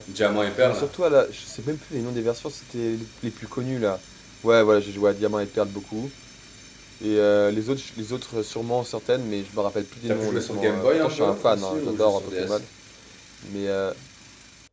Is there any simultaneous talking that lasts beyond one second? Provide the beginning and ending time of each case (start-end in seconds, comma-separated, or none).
10.1-12.6